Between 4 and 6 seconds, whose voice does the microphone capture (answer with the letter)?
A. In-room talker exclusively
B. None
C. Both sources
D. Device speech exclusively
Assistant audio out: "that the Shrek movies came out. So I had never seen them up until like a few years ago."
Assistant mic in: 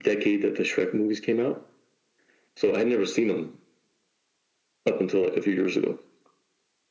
D